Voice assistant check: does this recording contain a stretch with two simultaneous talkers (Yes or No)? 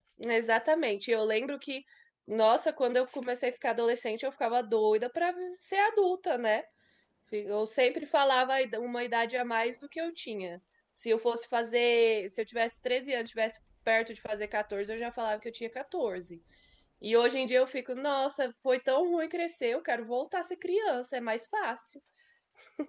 No